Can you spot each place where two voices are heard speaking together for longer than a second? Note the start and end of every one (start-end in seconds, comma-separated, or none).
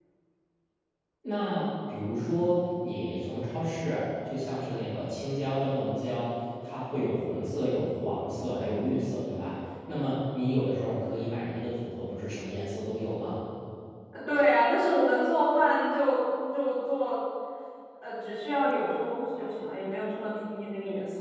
none